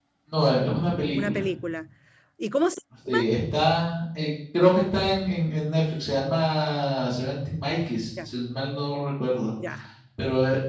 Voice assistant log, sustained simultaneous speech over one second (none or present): none